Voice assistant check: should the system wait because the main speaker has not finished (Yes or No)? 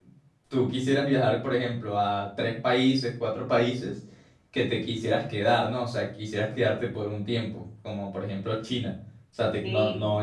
Yes